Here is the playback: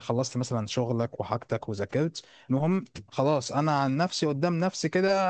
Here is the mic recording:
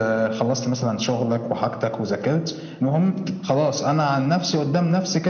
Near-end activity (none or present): none